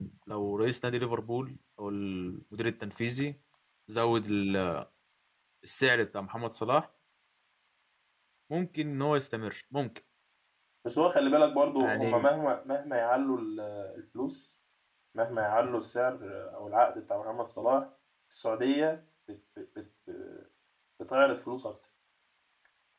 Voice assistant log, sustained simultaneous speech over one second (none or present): none